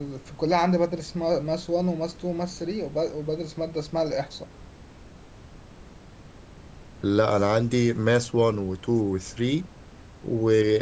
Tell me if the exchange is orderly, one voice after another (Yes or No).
Yes